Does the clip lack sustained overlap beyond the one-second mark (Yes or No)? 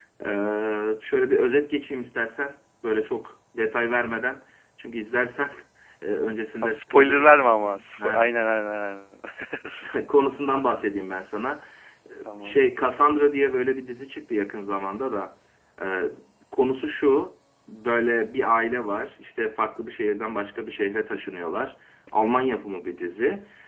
No